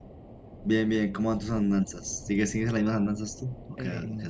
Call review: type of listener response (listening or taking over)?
taking over